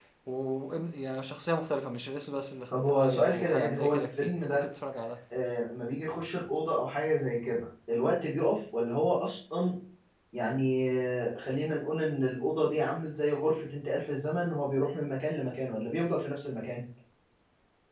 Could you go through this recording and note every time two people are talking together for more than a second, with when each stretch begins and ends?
2.7-4.7

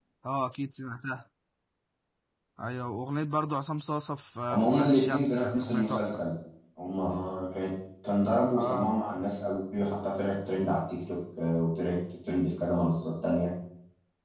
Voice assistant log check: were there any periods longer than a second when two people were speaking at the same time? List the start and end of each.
4.5-6.2

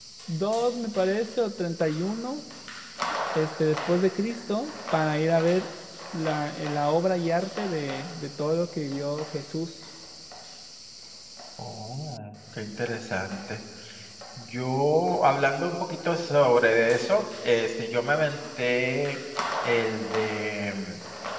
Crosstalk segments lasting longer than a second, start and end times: none

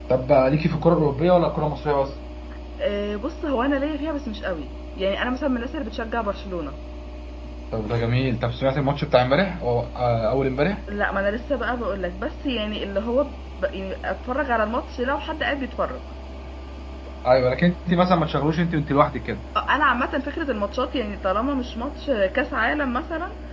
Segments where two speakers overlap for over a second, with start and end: none

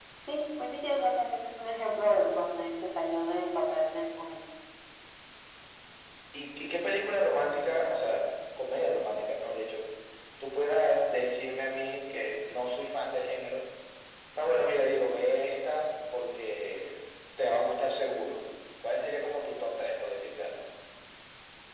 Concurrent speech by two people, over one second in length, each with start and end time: none

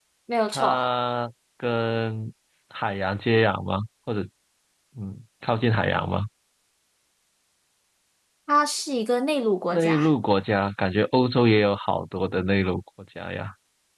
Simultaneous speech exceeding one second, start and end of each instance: none

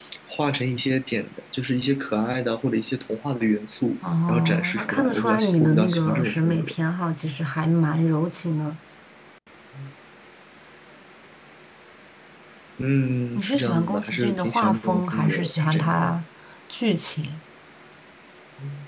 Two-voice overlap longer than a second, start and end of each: 4.0-6.7, 13.3-15.9

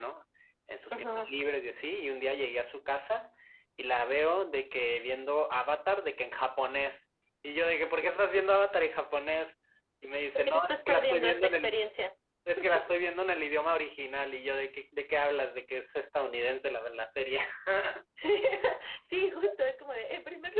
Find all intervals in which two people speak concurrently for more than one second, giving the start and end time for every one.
10.3-11.8

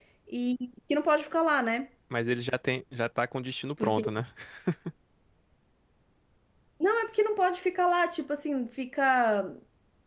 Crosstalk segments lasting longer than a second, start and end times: none

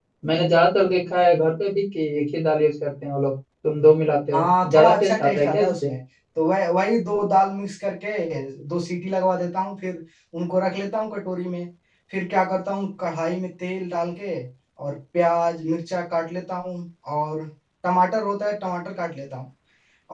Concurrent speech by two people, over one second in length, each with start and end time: 4.3-5.9

